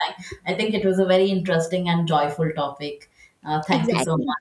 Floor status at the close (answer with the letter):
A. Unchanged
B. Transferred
B